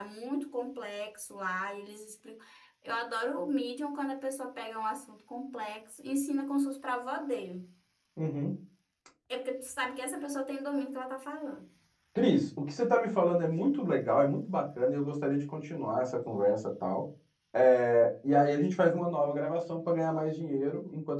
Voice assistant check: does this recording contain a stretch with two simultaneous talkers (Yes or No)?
No